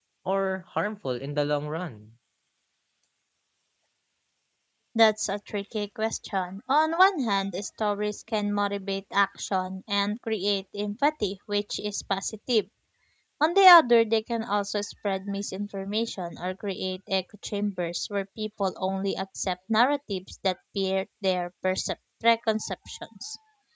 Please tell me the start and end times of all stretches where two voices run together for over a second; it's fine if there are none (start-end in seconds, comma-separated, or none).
none